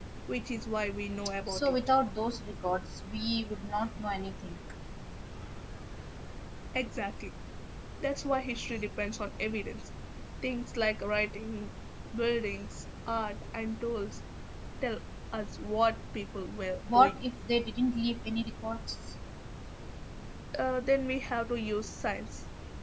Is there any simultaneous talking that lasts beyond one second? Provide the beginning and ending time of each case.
none

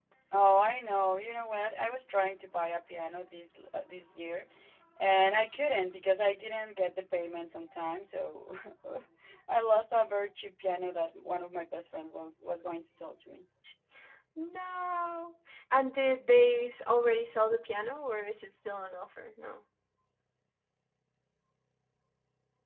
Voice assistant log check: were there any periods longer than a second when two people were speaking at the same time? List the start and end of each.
none

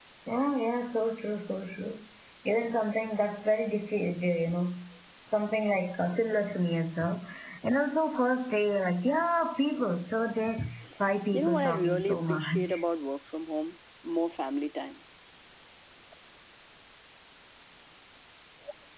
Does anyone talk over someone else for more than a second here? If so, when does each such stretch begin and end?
11.3-12.8

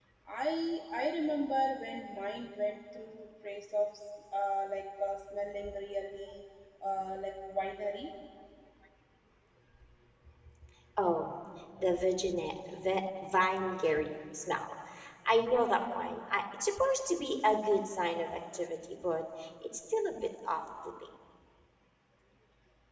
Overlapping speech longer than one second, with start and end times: none

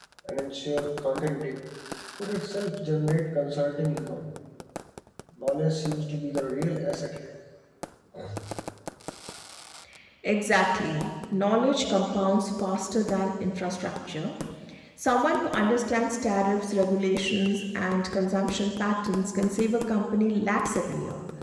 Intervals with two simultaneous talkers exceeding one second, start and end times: none

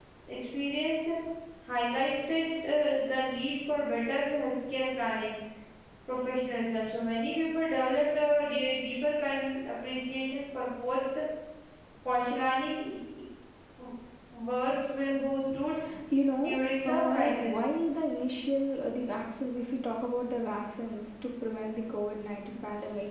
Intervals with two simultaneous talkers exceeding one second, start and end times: 16.4-17.6

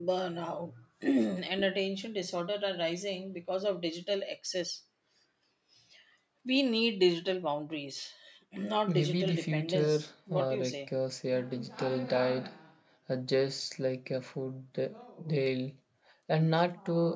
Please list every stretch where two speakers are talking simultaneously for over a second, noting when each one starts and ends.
8.9-10.9

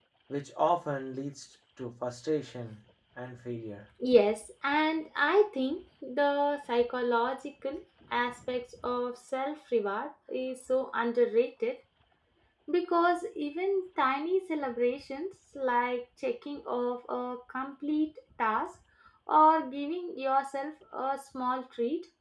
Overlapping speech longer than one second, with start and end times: none

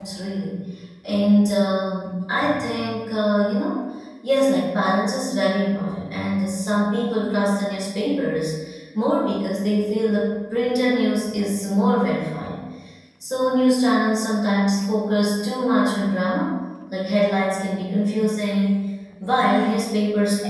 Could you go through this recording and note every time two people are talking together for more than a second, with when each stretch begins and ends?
none

